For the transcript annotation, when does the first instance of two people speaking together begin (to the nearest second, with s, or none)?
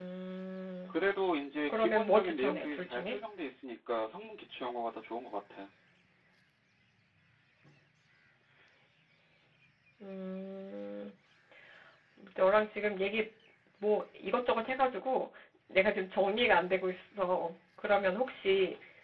2 s